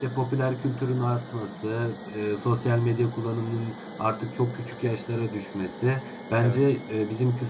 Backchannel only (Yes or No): Yes